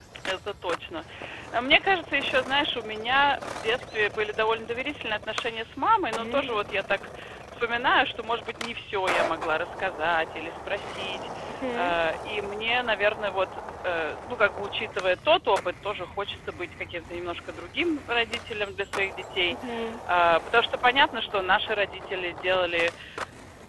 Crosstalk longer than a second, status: none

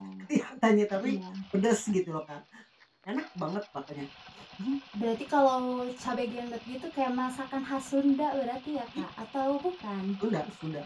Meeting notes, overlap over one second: none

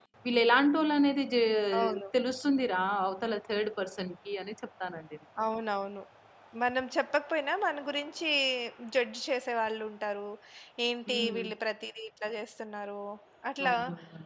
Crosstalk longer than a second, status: none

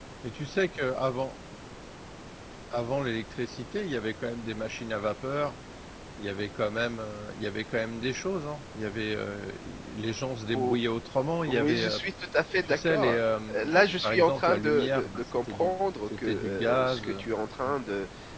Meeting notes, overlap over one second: present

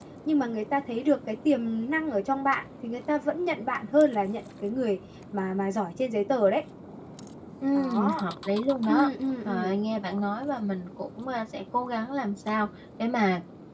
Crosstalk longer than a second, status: none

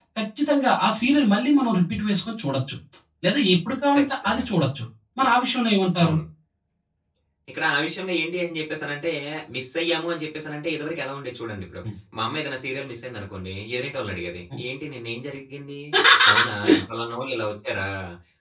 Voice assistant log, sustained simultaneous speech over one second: none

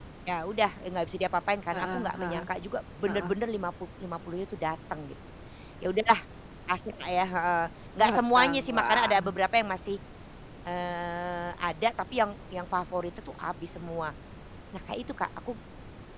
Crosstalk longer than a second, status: present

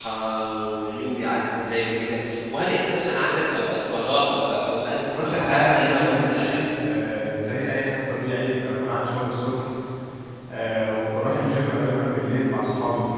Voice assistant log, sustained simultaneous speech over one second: present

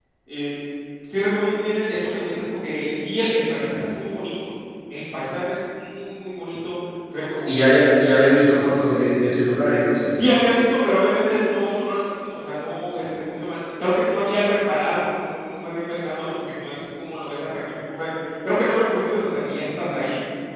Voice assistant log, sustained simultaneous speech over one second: none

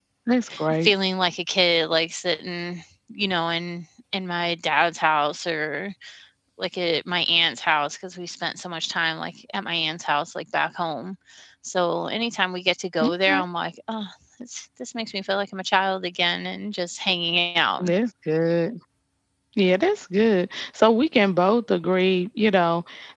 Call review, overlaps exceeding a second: none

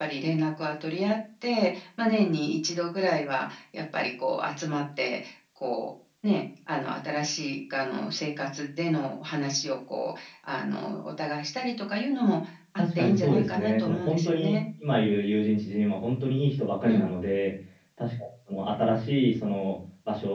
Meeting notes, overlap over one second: present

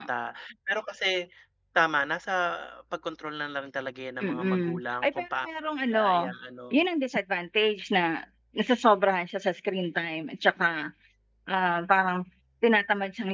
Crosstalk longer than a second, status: present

